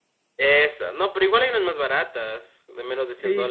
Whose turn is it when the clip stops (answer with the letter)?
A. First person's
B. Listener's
B